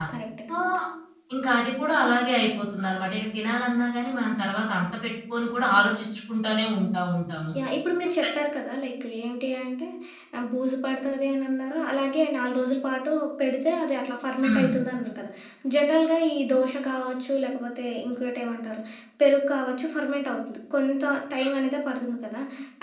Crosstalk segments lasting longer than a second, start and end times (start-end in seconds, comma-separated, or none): none